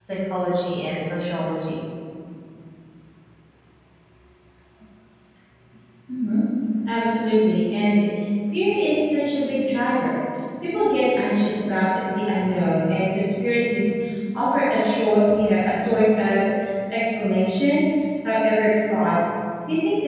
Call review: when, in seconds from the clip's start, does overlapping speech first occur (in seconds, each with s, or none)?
none